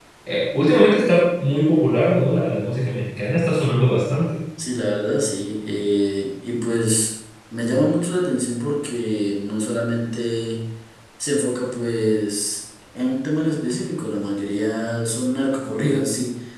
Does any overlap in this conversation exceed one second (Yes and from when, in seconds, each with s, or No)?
No